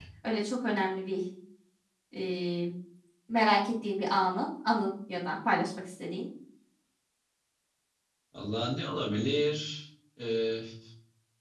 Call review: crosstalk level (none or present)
none